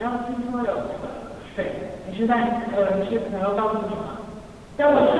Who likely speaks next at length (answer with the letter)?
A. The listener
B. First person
B